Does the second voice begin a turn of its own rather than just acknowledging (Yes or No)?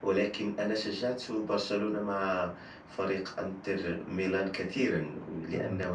No